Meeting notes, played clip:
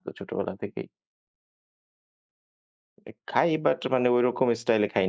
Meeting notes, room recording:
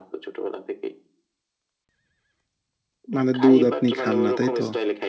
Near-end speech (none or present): present